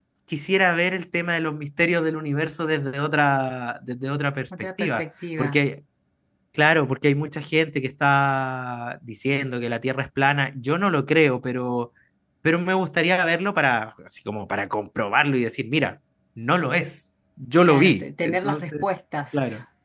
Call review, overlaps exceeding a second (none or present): present